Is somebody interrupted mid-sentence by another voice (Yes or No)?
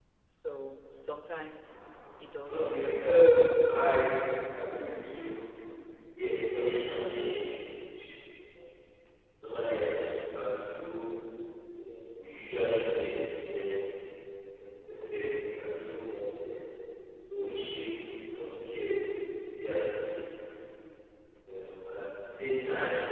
Yes